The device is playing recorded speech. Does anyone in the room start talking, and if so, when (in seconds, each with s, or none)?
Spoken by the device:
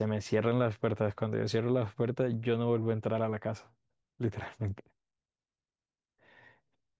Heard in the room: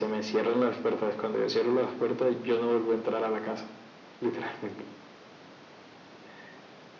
none